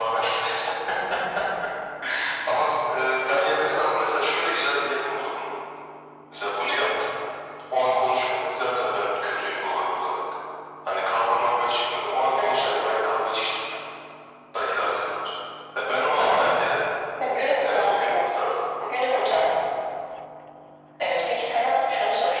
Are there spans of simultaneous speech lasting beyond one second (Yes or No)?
No